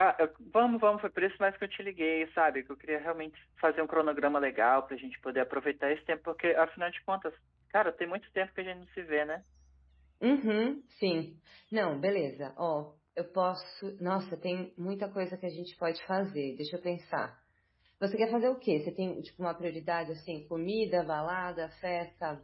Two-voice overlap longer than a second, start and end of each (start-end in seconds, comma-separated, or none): none